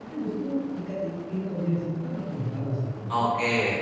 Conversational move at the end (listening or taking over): taking over